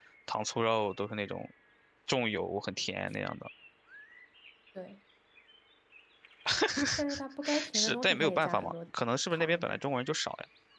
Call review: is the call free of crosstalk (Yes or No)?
No